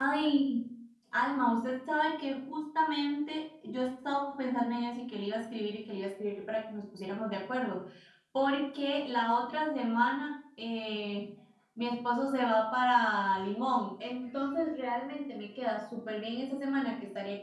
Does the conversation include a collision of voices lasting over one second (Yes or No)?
No